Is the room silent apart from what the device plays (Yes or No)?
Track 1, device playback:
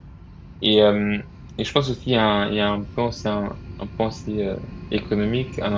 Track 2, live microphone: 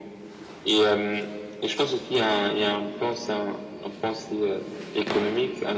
Yes